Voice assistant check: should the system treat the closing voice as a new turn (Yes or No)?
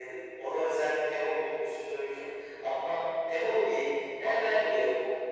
No